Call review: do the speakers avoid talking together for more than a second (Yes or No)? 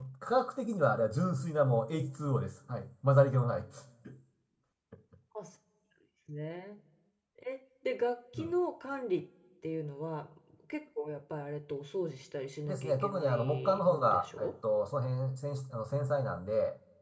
No